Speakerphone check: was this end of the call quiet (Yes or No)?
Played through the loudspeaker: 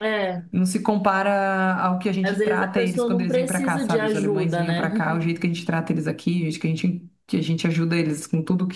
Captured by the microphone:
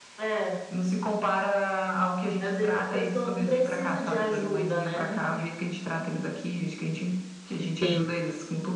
No